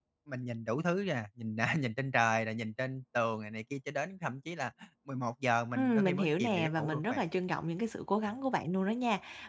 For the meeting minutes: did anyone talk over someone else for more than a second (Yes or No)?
Yes